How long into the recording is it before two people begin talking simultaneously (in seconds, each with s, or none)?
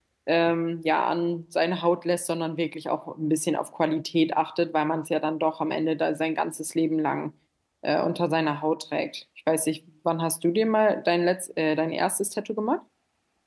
none